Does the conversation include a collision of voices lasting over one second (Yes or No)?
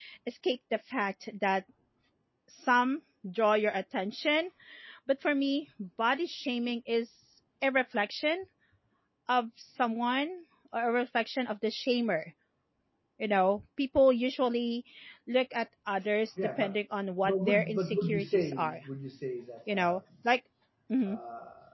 Yes